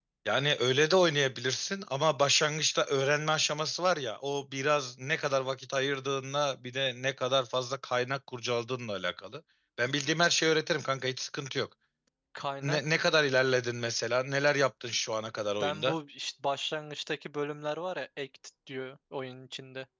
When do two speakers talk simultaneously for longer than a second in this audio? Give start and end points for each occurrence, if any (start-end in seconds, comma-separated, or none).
none